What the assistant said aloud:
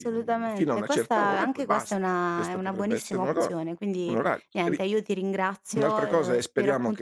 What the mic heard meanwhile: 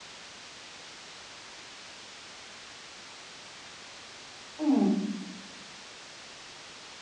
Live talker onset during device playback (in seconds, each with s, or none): 4.6 s